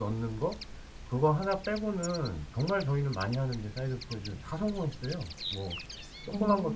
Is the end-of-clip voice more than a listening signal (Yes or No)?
No